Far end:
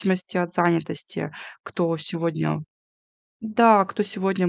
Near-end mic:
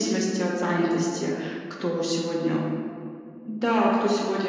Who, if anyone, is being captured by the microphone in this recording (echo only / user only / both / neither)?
echo only